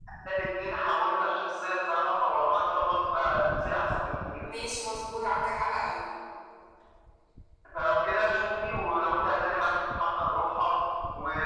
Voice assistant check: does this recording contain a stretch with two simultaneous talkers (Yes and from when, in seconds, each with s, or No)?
No